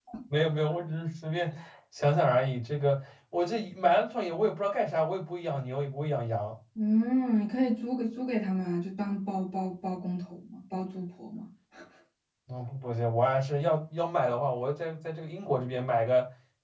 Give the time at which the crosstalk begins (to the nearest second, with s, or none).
none